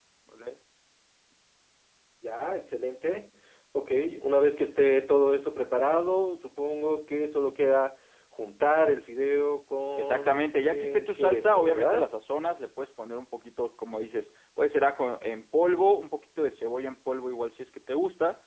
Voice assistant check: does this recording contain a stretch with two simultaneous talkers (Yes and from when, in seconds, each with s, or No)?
Yes, from 9.9 s